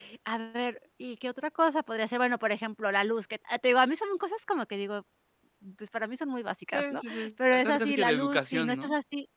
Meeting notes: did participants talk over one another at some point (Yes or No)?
Yes